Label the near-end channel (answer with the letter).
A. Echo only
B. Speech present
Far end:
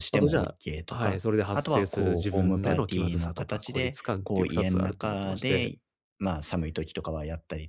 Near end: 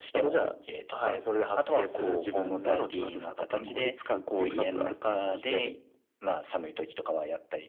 B